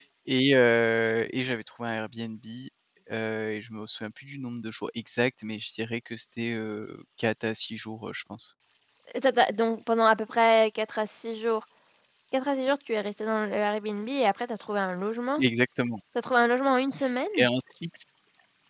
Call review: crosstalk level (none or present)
none